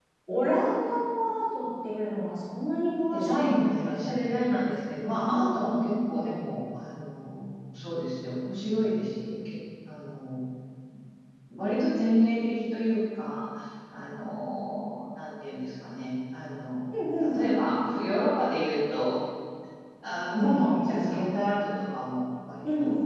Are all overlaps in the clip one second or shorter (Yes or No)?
No